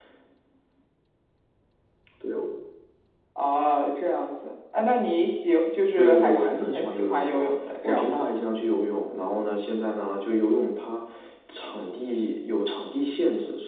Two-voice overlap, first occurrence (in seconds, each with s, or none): 6.0 s